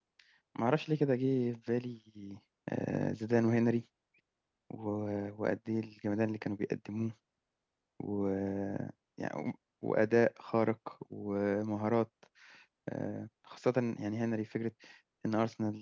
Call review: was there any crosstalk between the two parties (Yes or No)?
No